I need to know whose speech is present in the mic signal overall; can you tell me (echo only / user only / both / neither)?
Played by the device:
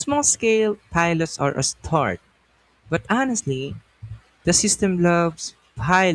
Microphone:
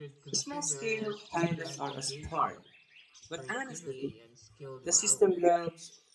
both